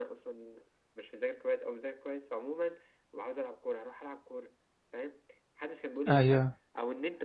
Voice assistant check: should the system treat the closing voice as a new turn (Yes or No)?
No